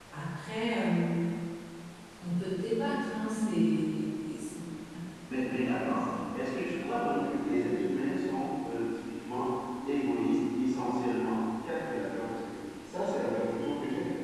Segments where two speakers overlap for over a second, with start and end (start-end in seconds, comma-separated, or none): none